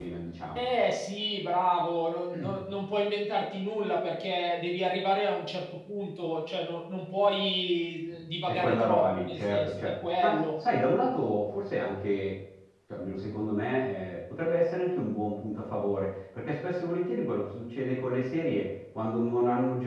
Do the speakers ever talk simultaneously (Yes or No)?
Yes